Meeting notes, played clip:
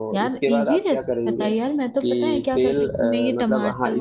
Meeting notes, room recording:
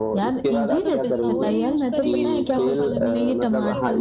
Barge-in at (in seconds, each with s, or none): 0.7 s